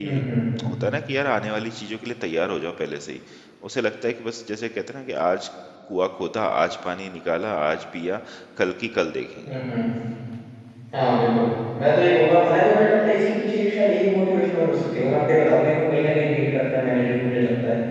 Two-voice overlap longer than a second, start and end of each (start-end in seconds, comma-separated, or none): none